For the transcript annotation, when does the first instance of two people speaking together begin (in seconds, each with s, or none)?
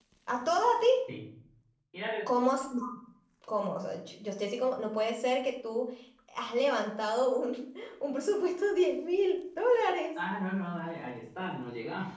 none